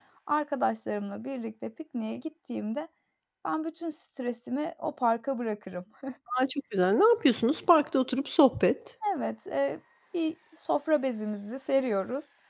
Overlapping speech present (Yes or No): No